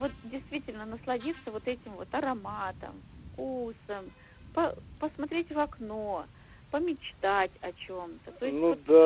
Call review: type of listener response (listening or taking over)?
taking over